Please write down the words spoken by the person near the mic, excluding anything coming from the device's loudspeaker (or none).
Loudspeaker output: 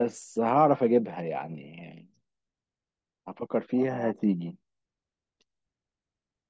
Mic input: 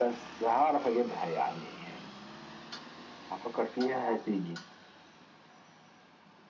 none